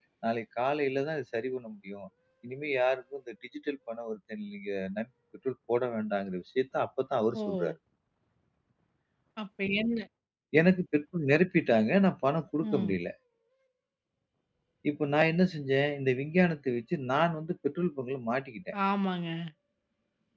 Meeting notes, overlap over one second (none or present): none